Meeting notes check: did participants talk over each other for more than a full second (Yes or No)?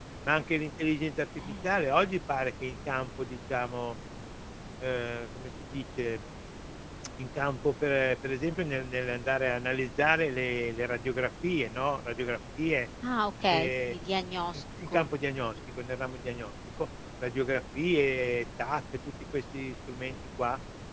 No